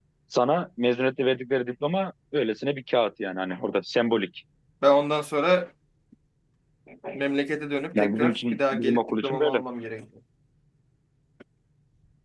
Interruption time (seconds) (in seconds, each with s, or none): 7.9 s